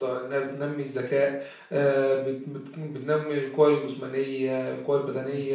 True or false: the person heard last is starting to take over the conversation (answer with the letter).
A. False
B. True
A